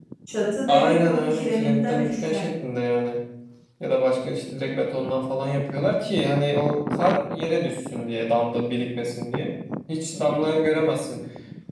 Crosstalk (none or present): present